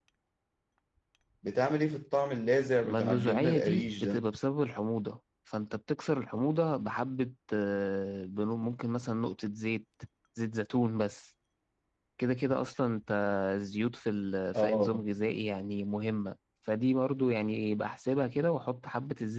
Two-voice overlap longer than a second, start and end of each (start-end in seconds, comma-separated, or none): 2.8-4.3